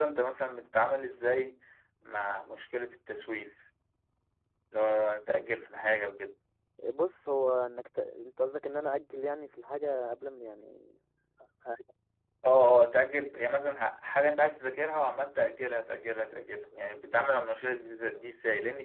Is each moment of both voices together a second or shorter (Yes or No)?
Yes